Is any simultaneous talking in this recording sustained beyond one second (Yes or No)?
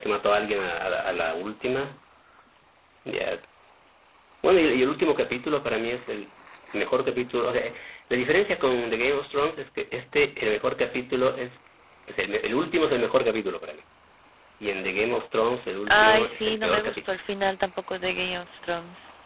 Yes